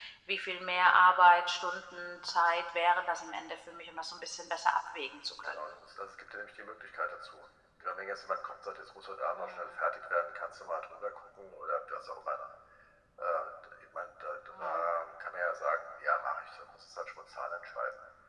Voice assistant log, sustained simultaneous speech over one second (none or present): none